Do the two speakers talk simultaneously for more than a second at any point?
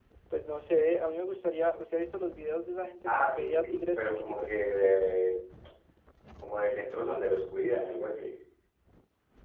Yes, from 3.1 s

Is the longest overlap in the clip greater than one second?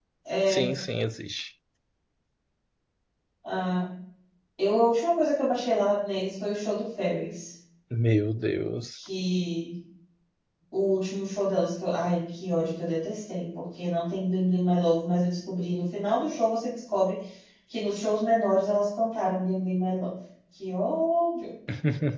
No

